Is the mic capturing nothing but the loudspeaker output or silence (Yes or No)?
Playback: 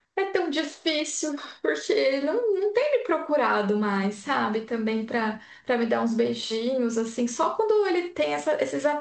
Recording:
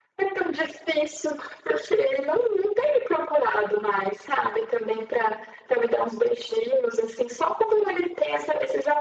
Yes